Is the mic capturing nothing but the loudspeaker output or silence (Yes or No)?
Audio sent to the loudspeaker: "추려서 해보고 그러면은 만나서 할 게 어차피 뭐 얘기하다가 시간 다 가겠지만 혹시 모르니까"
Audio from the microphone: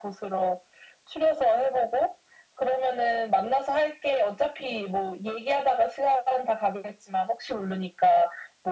Yes